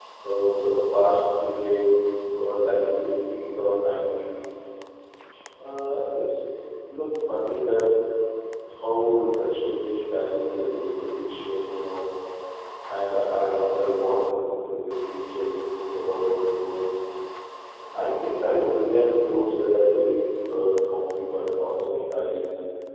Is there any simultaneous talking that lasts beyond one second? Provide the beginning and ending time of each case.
none

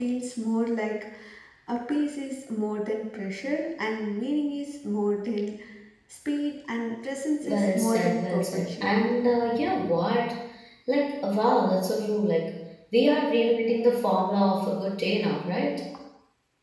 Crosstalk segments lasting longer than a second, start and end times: 7.4-8.9

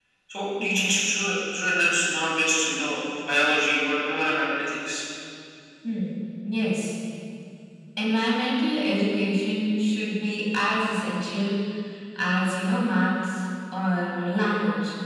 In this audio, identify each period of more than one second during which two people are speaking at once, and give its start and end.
none

